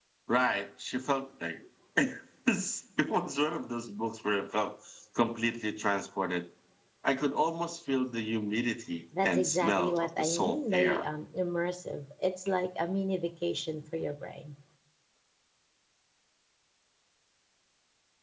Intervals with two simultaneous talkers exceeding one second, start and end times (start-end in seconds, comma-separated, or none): 9.2-11.1